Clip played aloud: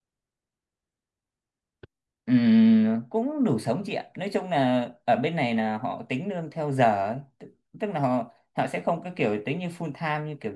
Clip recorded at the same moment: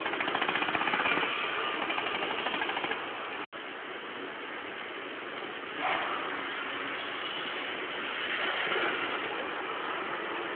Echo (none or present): none